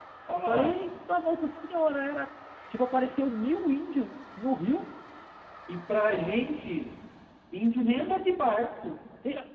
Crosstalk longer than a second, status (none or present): none